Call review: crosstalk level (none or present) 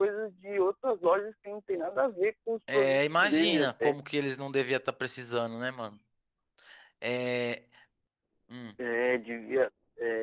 present